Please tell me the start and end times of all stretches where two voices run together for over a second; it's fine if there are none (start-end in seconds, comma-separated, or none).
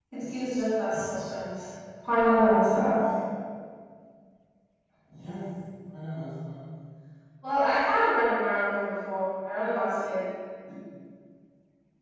none